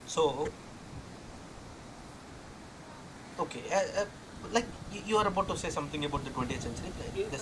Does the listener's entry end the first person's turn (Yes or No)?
Yes